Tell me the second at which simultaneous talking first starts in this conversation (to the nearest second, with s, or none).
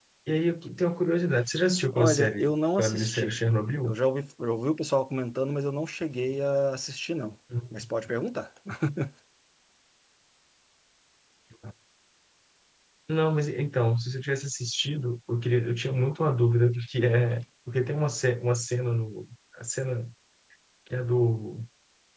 2 s